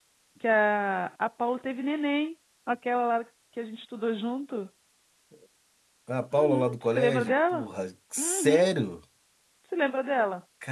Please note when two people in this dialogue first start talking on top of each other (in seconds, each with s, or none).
6.3 s